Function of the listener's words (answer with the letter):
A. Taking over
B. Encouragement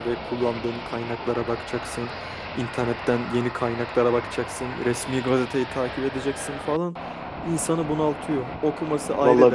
B